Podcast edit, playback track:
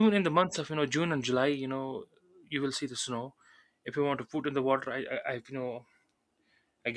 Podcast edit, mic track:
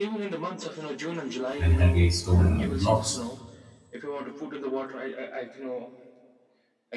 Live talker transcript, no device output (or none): and heavy stone blocks.